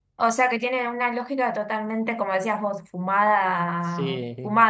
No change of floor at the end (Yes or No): Yes